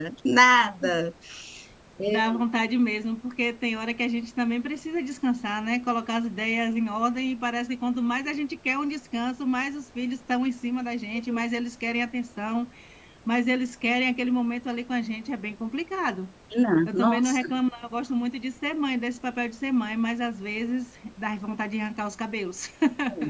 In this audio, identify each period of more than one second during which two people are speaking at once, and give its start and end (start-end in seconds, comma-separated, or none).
none